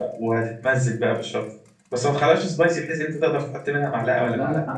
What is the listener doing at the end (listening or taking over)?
taking over